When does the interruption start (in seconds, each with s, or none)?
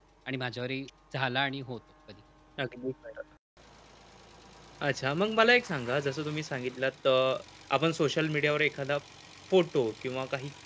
none